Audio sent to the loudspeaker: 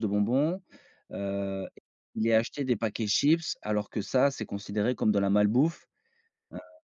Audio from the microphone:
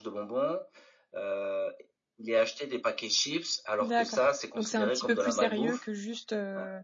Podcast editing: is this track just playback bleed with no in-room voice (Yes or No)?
No